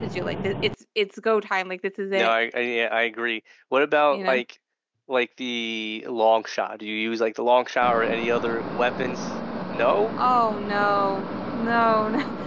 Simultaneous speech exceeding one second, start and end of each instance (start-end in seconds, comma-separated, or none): none